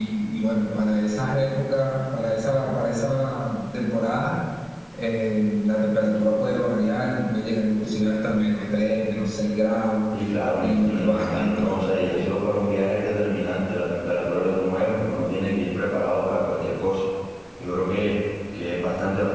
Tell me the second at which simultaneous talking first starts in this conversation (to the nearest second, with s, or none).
11 s